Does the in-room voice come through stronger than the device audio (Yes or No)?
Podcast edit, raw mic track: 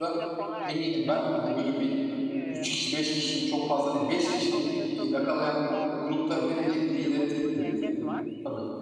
Yes